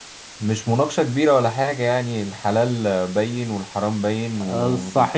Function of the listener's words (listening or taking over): taking over